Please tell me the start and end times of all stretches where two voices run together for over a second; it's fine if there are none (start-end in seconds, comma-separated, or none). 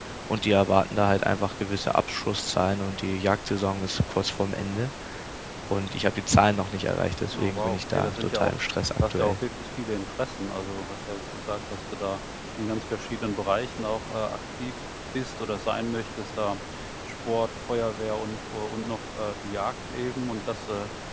7.3-8.6